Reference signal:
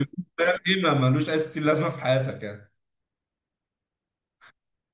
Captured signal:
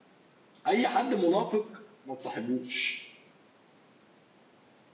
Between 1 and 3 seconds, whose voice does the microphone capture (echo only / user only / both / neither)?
user only